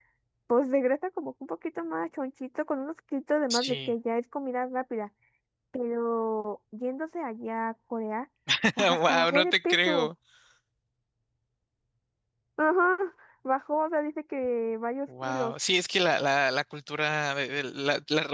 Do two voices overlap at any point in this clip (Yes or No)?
Yes